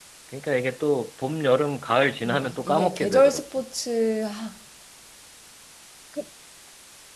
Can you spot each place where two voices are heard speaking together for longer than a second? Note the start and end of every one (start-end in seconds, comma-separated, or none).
2.2-3.5